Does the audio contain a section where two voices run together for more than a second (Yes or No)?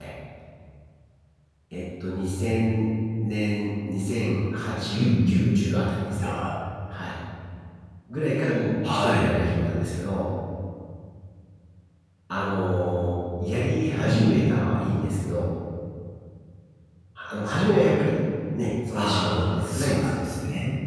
Yes